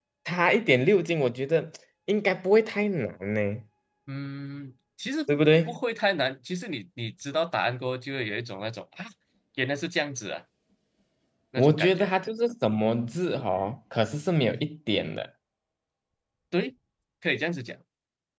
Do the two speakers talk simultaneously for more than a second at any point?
No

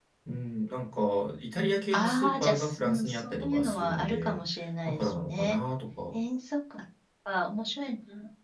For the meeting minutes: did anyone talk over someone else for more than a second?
Yes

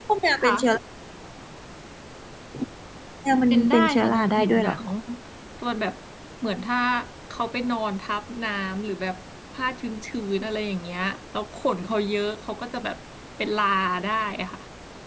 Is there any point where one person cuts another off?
Yes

